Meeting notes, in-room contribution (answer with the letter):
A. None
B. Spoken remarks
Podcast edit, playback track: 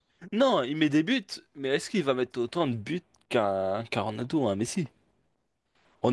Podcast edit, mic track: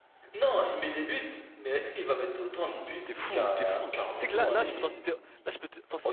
B